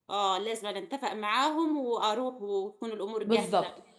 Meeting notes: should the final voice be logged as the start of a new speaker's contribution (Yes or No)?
Yes